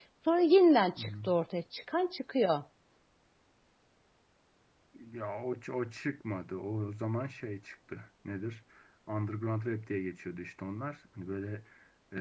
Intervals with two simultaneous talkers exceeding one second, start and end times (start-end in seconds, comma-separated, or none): none